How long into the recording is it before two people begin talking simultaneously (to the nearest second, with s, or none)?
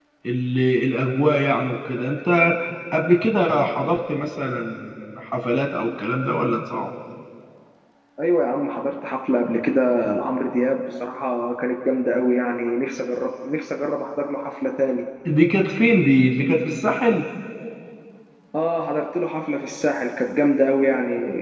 none